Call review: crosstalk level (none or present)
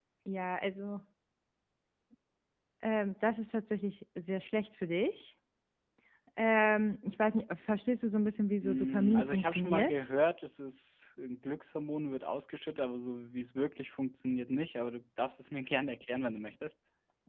present